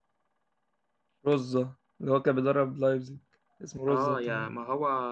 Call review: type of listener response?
taking over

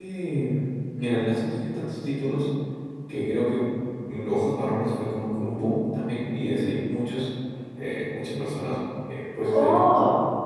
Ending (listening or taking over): taking over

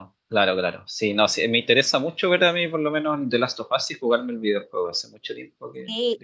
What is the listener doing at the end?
taking over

